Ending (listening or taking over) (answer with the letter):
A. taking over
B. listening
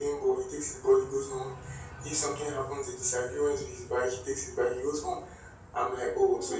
B